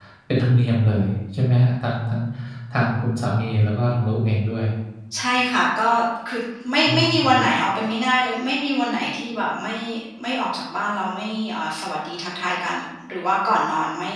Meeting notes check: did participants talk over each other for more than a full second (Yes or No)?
No